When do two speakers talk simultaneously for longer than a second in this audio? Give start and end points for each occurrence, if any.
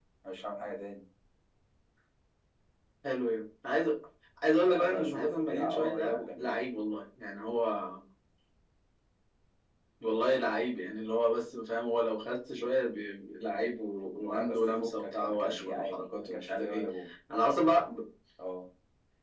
4.6-6.6, 14.2-16.9

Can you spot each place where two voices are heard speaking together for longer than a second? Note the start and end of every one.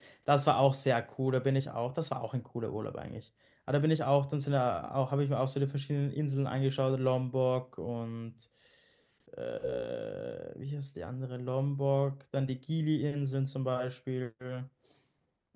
none

